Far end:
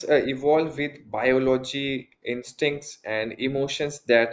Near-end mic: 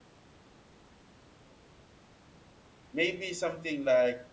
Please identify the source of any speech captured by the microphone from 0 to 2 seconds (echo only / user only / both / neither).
neither